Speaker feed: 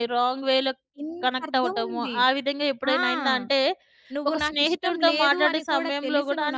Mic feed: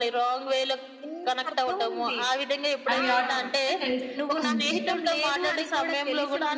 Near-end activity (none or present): present